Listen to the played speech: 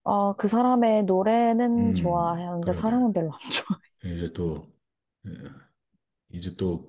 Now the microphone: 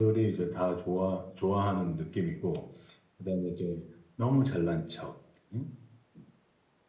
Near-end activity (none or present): present